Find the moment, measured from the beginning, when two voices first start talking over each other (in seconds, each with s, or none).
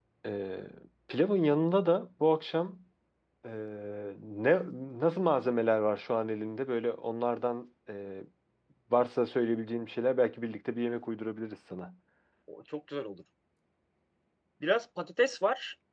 none